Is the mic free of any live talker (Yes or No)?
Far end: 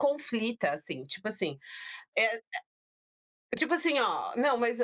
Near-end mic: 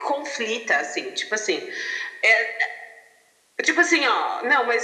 Yes